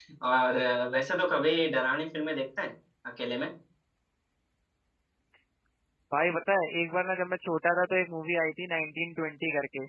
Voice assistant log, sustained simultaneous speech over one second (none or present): none